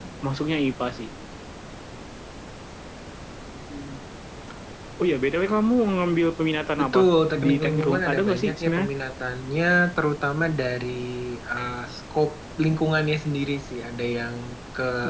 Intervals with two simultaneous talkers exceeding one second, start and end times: 7.4-8.9

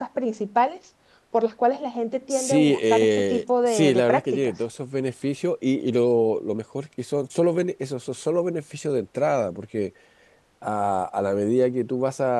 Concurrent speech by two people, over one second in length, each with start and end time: 2.3-4.5

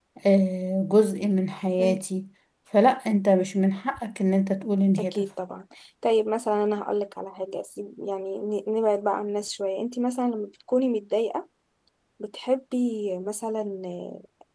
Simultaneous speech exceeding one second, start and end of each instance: none

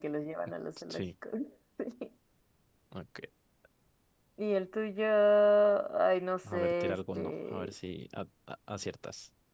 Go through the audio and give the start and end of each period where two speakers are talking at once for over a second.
6.4-7.7

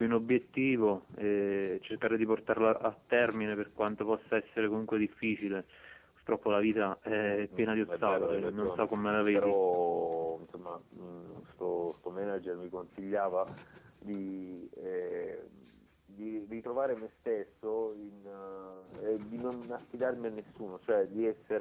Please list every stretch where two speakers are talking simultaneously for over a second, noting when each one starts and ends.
7.2-8.9

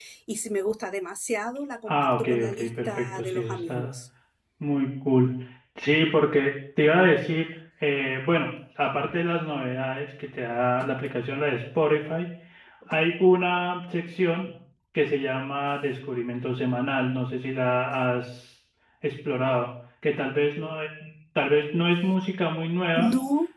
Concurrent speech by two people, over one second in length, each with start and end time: 1.9-3.9

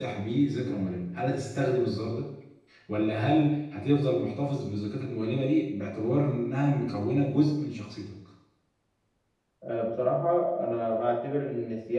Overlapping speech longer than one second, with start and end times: none

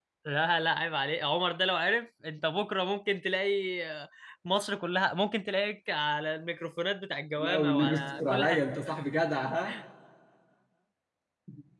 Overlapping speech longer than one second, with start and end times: 7.4-8.6

